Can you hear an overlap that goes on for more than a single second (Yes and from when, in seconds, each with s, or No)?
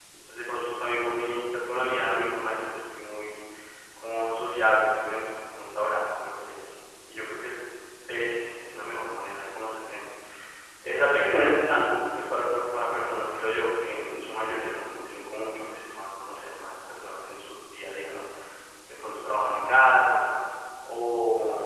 No